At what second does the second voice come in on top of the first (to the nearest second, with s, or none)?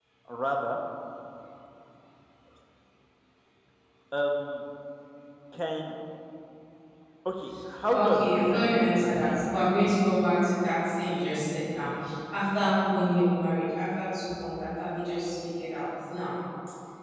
8 s